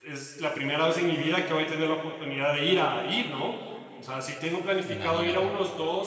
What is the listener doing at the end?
listening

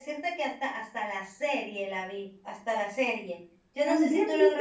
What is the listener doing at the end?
taking over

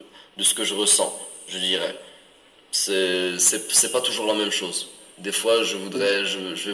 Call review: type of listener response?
listening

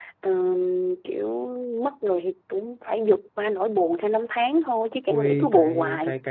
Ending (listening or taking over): taking over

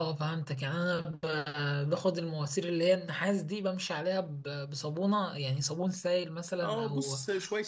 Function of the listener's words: taking over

